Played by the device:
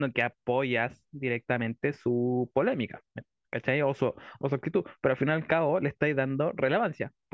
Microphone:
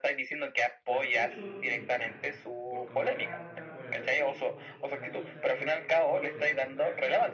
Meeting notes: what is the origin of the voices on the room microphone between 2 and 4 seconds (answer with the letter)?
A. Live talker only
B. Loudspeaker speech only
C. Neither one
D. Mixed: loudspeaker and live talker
D